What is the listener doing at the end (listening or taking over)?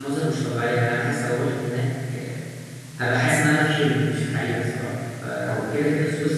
listening